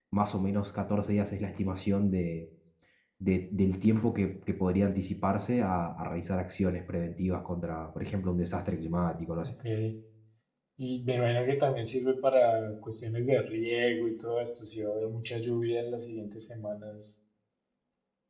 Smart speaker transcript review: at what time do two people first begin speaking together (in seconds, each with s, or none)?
none